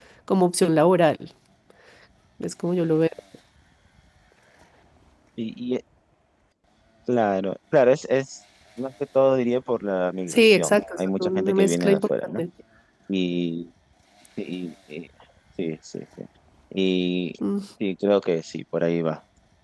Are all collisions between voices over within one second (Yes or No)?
No